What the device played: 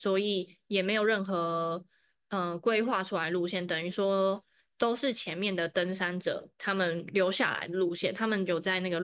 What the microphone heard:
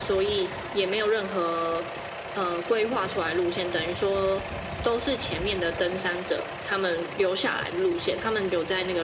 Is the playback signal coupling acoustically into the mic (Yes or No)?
Yes